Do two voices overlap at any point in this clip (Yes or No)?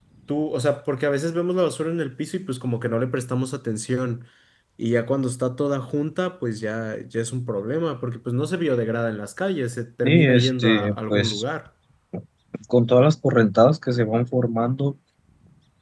Yes